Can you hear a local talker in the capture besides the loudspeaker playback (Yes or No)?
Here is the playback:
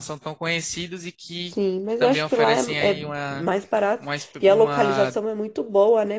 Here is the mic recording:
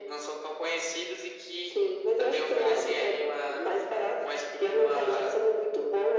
No